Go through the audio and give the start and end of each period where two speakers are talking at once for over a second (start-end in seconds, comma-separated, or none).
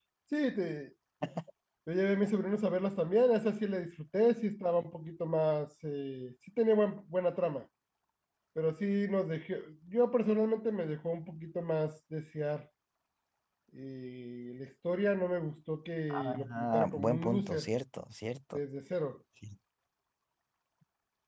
16.1-17.7